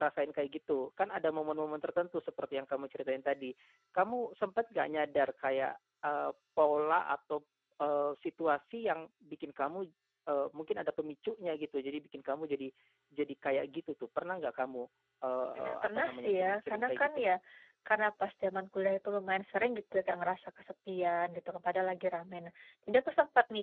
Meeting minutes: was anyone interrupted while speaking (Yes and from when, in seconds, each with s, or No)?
Yes, from 15.6 s